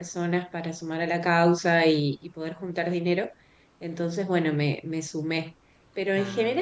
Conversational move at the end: listening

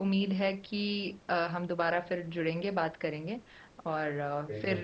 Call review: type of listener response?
listening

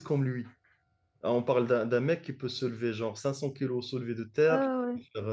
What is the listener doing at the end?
taking over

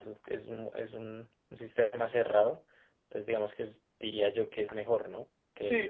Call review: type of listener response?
taking over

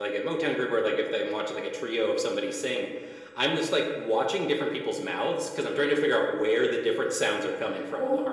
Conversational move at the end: taking over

